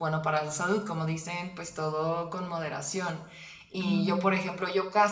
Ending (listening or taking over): listening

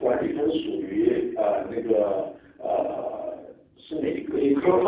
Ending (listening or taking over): taking over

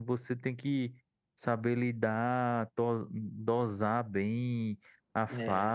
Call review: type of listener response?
listening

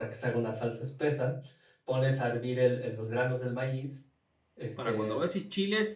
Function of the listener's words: taking over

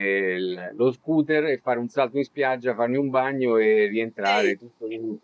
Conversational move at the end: listening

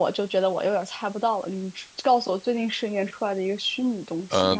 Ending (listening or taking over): taking over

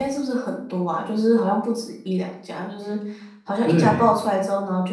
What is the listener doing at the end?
listening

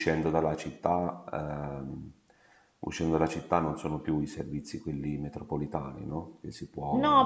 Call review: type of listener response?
taking over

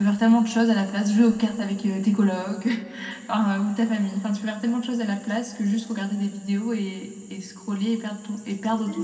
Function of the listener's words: taking over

